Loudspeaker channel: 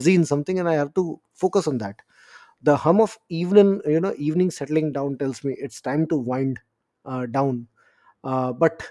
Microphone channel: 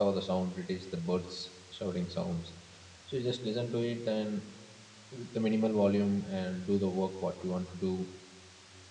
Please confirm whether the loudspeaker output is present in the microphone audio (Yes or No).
No